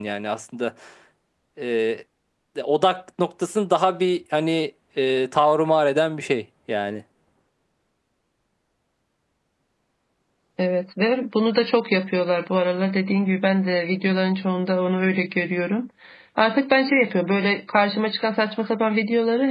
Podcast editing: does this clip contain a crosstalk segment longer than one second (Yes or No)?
No